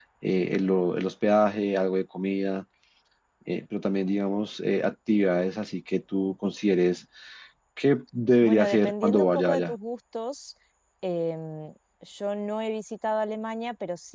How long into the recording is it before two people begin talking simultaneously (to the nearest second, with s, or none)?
8 s